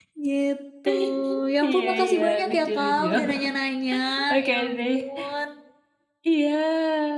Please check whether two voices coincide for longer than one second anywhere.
Yes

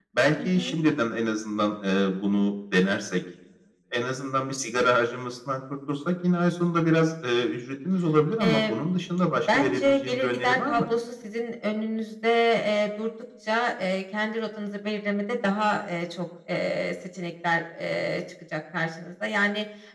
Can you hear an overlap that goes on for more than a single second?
Yes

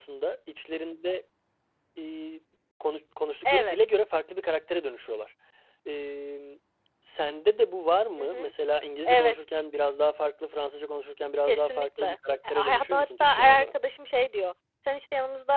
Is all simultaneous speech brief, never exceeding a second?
No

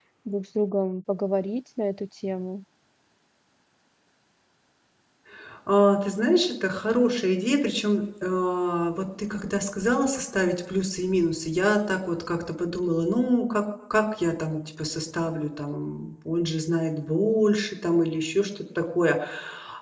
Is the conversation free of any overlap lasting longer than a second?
Yes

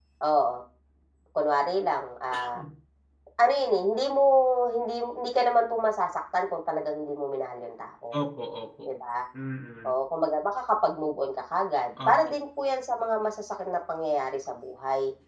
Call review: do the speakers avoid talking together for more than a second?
Yes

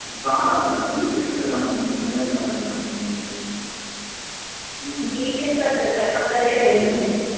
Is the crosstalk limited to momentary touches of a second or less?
Yes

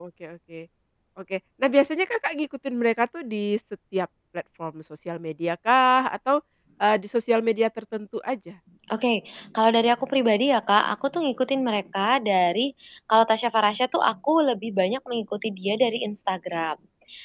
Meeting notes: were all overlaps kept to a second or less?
Yes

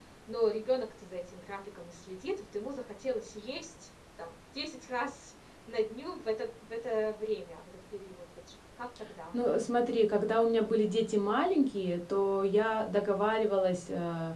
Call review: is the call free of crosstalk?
Yes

